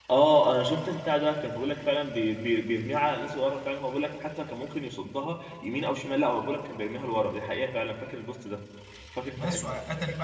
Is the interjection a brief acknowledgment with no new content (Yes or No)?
No